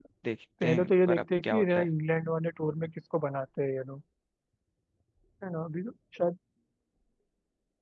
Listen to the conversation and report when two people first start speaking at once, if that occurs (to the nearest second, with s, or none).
1 s